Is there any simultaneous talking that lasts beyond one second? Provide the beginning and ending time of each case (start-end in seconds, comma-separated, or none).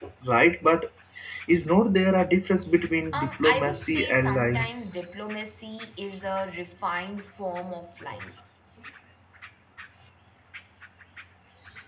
3.1-4.7